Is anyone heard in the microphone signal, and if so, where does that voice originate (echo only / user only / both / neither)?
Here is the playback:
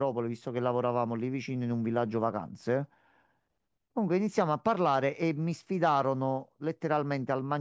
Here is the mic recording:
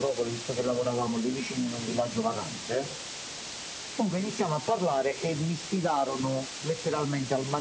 echo only